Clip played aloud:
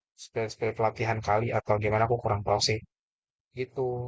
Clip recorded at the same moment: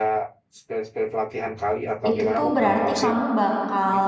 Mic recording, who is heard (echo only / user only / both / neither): both